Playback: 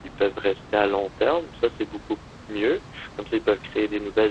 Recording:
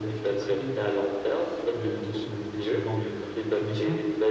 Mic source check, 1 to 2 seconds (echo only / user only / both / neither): both